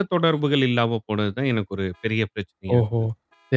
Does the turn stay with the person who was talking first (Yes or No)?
No